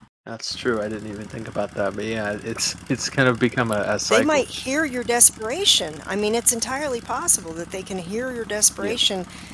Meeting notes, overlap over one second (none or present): none